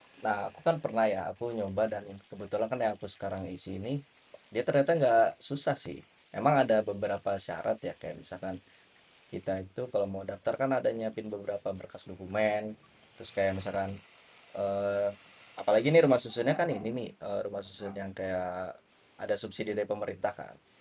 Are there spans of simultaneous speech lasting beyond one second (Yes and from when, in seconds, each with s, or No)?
No